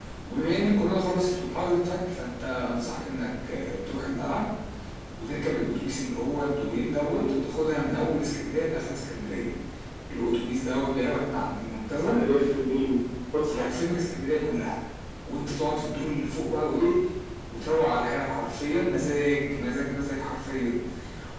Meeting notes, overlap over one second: none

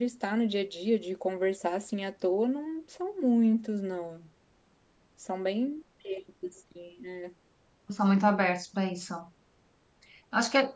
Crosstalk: none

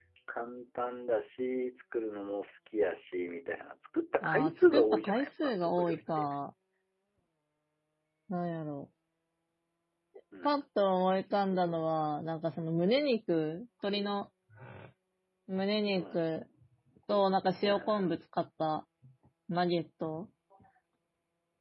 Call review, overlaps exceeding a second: present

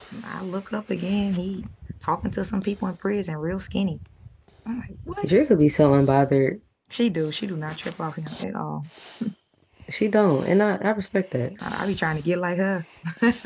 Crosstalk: none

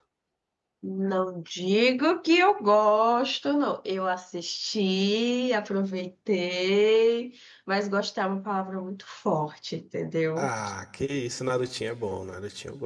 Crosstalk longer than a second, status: none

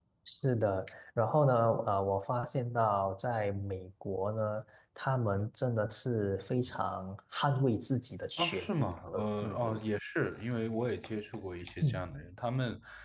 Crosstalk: present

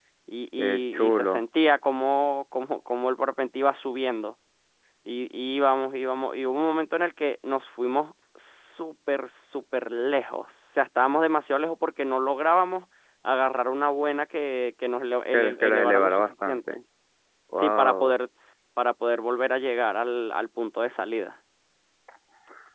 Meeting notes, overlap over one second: present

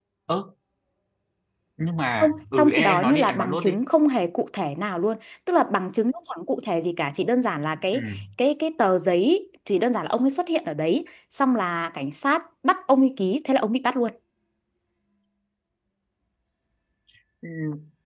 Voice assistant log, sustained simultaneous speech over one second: present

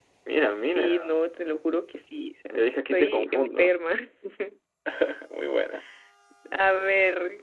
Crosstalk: present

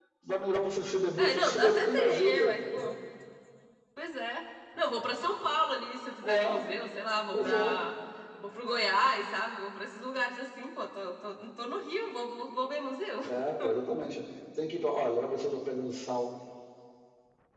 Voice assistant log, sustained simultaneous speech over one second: present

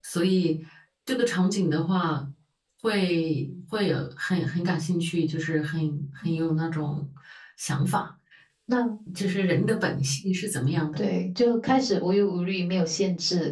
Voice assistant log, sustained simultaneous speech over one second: none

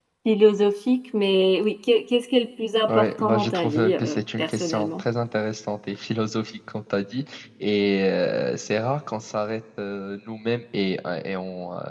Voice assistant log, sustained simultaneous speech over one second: present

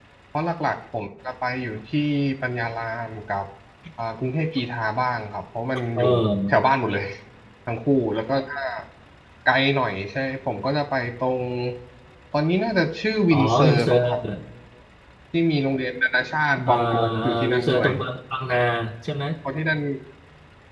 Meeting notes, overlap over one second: present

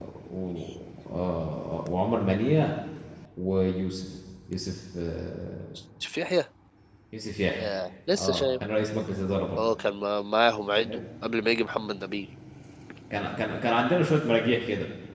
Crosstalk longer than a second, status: none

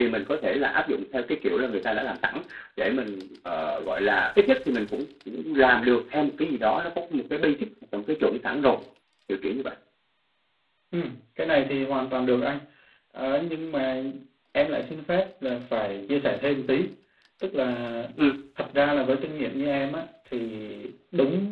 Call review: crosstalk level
none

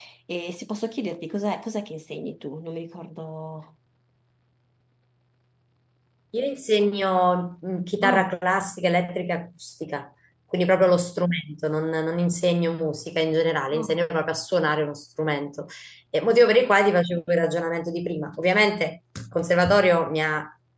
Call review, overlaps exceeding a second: none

